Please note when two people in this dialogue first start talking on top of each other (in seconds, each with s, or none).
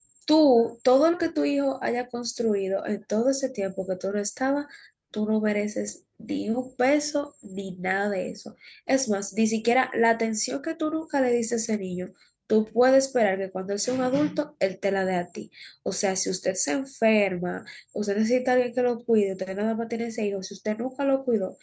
none